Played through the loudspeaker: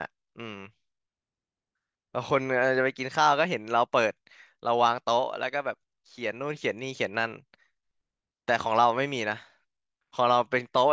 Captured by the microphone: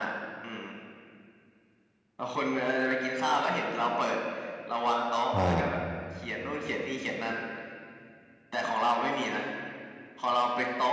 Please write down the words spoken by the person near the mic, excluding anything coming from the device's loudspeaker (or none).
อ่า